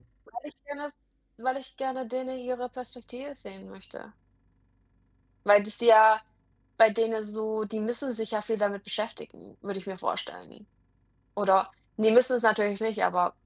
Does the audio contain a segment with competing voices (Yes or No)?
No